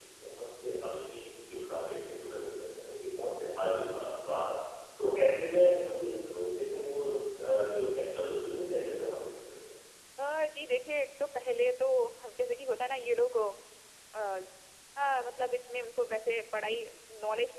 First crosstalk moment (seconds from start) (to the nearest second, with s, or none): none